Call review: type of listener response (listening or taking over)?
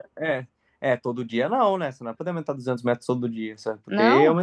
listening